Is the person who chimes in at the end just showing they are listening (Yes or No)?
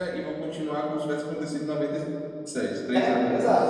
No